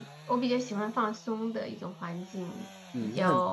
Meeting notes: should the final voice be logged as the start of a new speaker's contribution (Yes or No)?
Yes